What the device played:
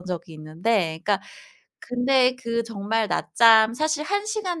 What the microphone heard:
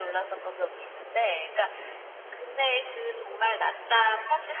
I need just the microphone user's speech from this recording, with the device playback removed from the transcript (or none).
none